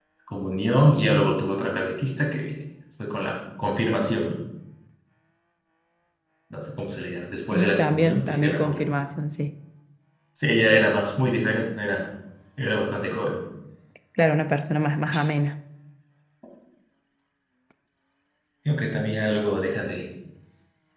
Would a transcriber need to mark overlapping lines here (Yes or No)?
Yes